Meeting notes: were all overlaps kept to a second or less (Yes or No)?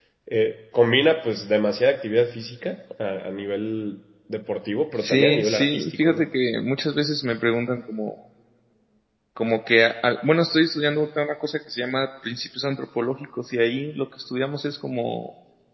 No